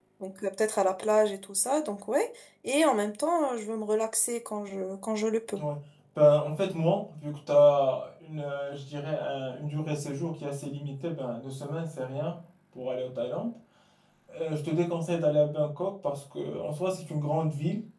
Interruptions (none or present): none